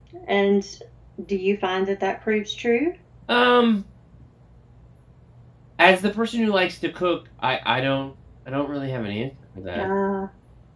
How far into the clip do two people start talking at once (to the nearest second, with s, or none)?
none